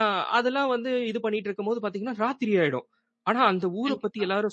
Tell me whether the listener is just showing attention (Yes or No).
Yes